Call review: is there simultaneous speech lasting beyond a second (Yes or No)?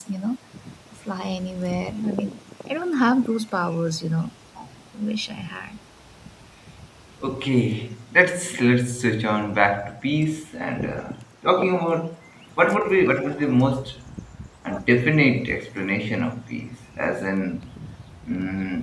No